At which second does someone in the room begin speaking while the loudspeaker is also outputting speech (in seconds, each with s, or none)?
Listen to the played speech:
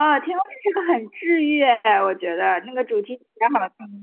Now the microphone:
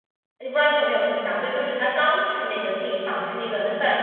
0.4 s